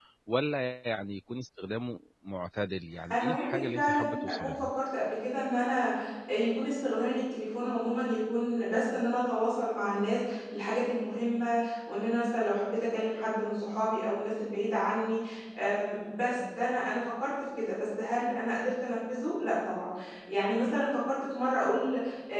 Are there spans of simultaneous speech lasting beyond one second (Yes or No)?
Yes